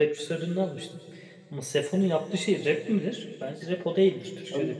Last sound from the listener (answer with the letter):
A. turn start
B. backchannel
A